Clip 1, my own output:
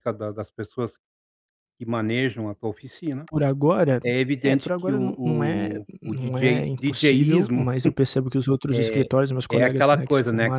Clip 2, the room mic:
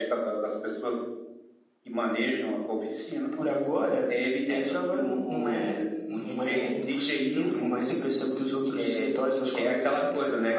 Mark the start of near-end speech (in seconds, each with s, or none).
none